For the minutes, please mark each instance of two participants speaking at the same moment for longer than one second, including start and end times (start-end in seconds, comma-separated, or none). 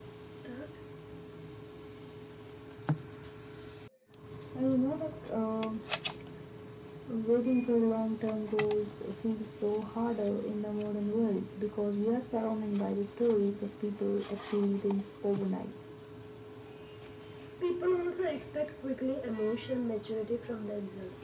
none